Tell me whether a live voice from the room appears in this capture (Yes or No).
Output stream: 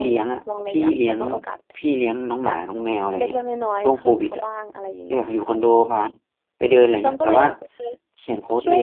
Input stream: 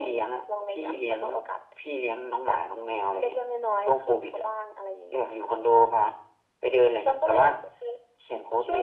No